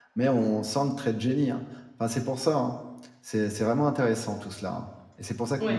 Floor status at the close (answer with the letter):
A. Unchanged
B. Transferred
B